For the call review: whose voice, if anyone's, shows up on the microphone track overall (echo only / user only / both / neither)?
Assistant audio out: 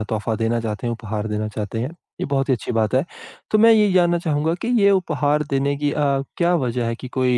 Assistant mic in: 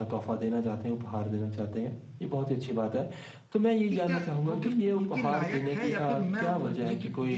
both